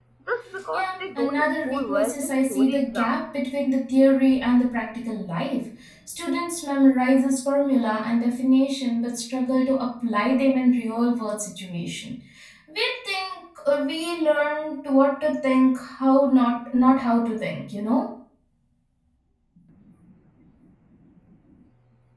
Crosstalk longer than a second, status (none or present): present